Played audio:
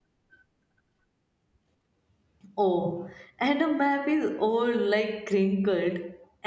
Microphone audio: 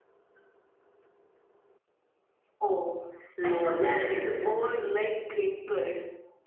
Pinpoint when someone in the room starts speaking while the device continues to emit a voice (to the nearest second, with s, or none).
3 s